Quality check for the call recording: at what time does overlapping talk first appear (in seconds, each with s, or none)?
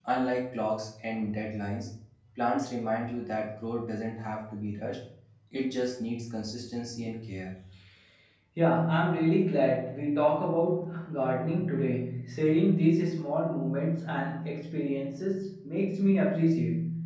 none